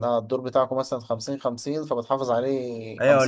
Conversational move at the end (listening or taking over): taking over